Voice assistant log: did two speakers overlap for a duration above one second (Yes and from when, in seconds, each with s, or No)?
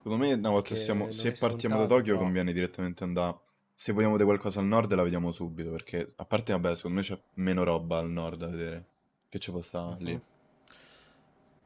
Yes, from 0.7 s